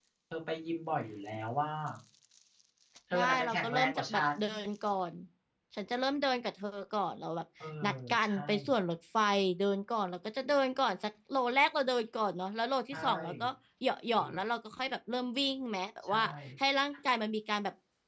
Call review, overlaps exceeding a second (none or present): present